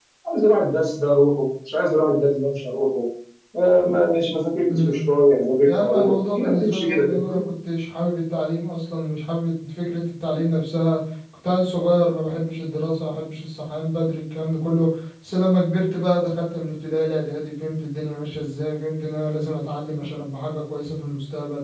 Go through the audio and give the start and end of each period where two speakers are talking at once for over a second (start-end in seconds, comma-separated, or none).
5.7-7.4